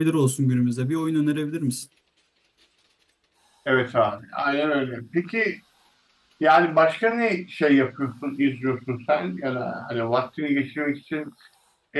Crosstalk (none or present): none